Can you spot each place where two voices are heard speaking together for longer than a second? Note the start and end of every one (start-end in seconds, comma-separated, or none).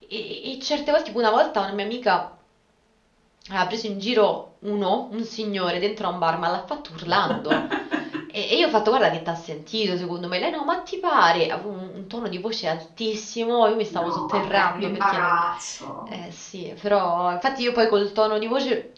13.9-15.4